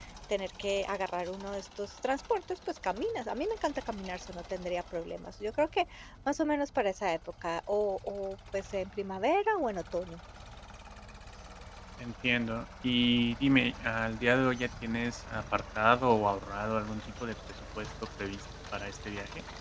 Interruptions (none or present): none